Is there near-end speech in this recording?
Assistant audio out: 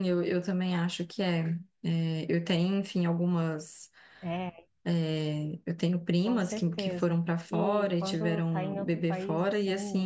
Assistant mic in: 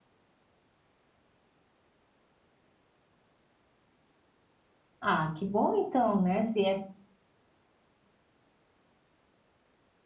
Yes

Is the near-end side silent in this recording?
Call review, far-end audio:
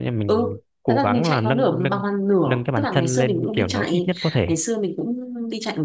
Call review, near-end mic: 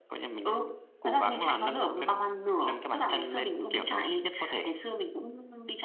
Yes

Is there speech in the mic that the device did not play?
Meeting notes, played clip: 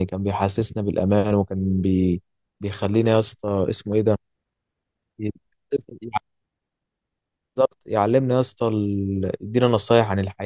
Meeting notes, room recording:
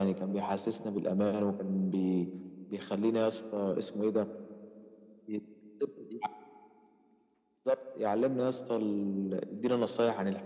No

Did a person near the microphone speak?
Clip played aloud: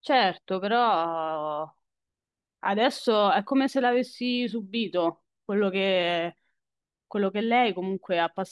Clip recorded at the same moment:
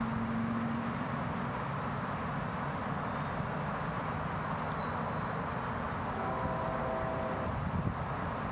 No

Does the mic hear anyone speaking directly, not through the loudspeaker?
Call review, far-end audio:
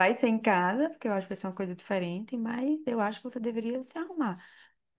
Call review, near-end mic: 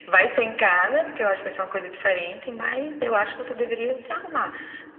No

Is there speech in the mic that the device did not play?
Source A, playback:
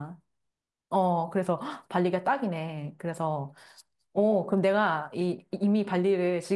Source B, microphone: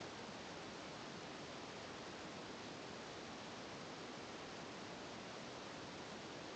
No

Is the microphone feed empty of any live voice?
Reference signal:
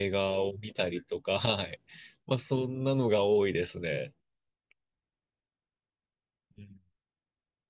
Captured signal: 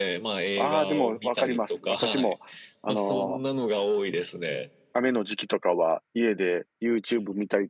No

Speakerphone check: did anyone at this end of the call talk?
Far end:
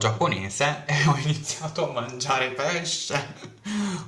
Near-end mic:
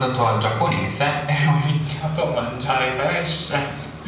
No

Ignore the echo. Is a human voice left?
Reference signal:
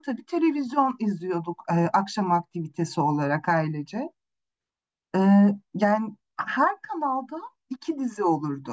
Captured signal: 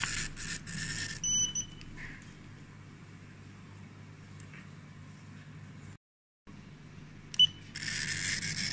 No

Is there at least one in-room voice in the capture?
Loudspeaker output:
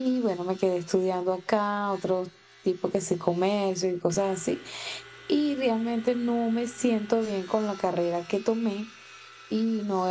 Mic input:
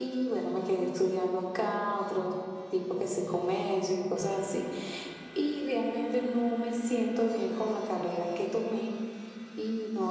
No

